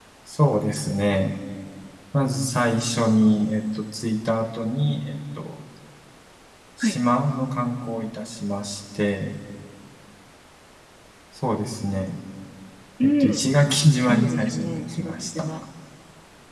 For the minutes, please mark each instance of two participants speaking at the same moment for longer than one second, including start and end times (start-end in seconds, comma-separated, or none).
14.1-15.5